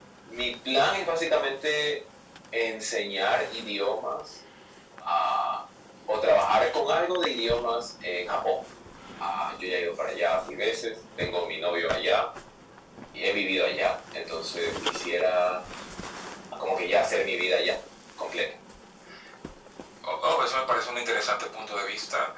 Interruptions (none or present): none